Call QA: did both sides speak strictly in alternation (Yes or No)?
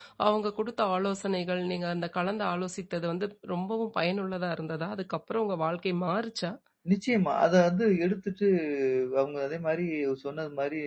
Yes